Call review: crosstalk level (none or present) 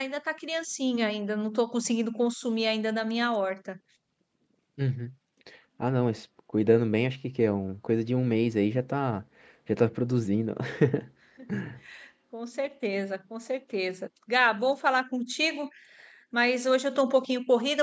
none